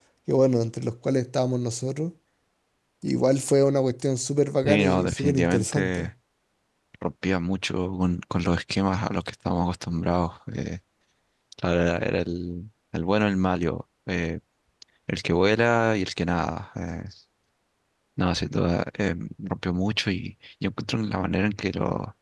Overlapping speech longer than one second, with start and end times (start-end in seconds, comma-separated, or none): 4.6-6.1